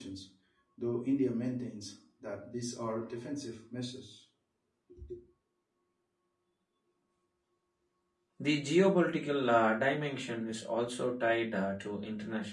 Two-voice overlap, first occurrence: none

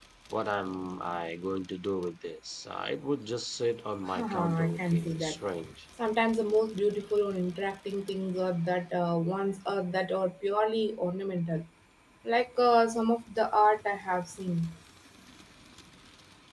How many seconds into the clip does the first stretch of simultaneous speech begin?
4 s

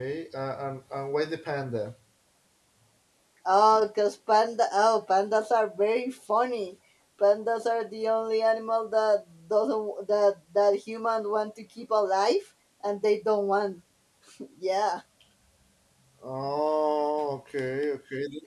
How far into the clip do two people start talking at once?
none

